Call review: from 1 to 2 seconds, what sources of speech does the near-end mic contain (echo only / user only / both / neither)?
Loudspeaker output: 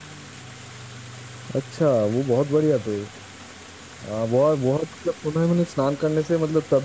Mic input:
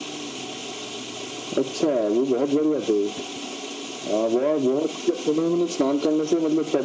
echo only